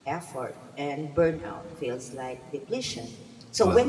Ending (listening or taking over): listening